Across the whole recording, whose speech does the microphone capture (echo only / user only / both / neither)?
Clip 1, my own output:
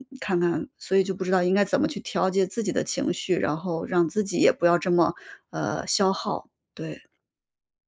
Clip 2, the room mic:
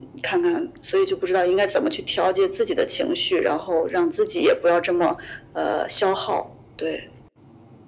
echo only